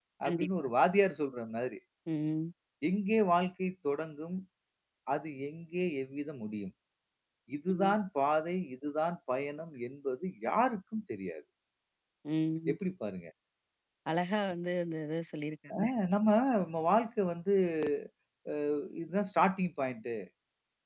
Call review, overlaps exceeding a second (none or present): none